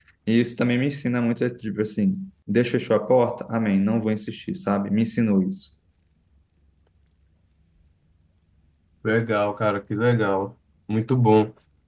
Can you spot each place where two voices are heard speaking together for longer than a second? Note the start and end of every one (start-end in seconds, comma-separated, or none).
none